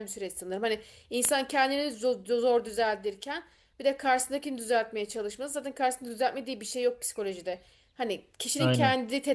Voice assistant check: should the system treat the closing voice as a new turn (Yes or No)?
No